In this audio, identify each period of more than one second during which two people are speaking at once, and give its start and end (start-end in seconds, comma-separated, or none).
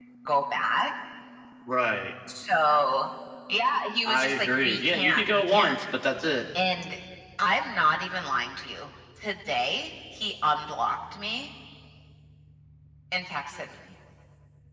4.0-5.8